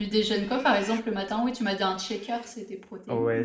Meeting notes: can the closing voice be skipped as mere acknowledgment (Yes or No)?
No